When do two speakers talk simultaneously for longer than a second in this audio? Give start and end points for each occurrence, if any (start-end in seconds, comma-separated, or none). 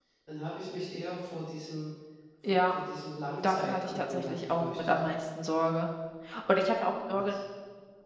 3.5-5.0